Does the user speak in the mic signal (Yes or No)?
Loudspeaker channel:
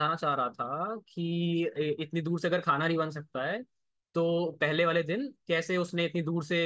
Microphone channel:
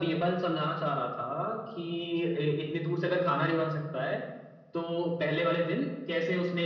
No